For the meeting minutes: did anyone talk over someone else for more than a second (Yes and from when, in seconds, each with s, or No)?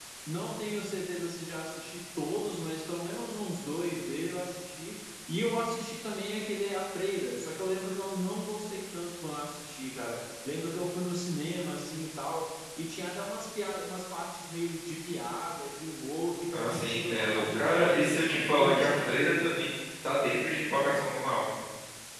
Yes, from 16.5 s